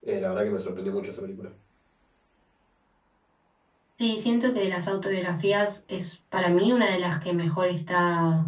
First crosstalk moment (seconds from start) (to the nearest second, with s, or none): none